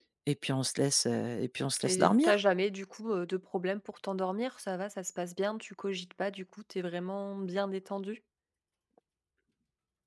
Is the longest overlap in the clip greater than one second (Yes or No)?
No